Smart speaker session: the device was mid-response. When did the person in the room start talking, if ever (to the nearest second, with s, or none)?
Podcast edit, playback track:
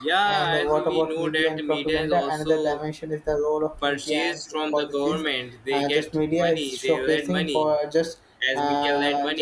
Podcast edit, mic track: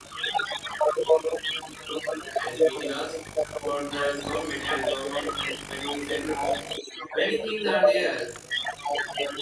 2 s